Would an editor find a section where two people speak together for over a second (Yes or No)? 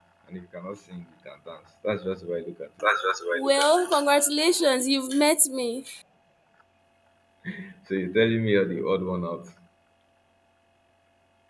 No